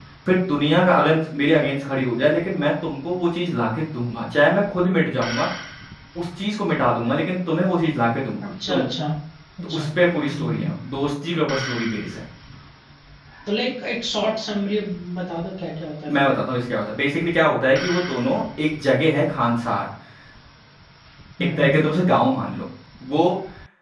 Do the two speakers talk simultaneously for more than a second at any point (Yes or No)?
No